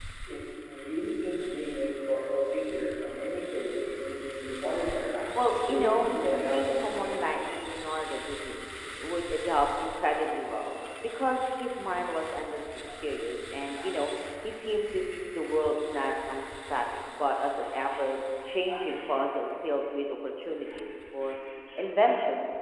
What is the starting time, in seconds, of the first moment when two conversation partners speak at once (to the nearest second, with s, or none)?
6 s